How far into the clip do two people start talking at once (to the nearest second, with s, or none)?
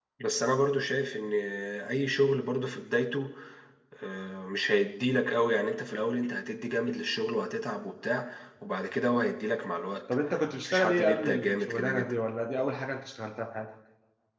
11 s